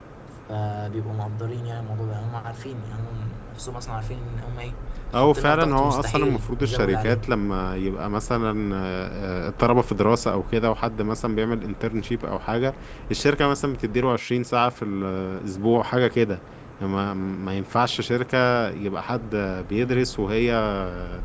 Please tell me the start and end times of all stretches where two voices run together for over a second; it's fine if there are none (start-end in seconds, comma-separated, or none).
5.1-7.2